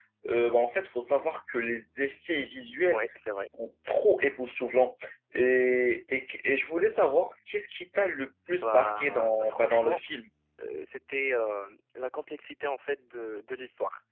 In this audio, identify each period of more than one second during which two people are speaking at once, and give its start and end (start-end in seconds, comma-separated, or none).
8.5-10.0